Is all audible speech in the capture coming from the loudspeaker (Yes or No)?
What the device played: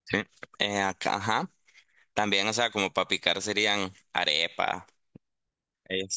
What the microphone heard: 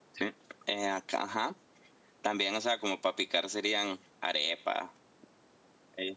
Yes